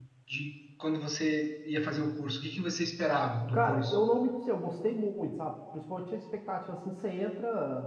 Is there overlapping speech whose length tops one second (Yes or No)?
No